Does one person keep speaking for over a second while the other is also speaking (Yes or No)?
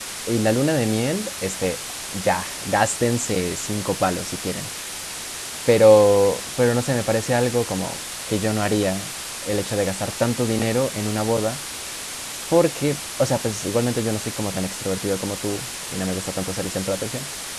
No